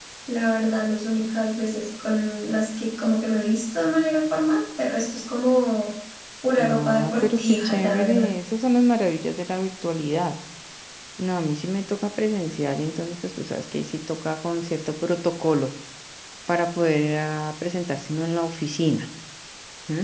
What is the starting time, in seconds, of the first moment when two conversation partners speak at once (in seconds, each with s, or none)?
6.6 s